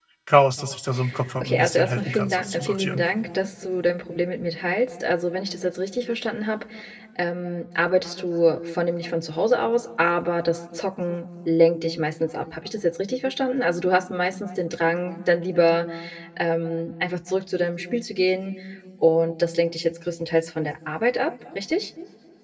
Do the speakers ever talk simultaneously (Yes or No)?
Yes